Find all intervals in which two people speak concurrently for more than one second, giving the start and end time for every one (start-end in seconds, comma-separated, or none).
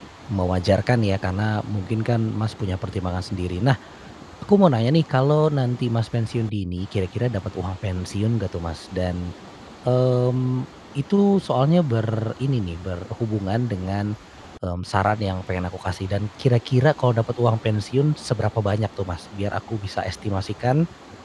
none